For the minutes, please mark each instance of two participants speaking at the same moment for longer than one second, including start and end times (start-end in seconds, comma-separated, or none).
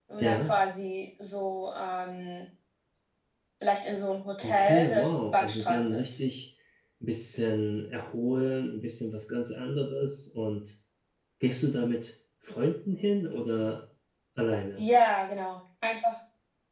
4.4-6.2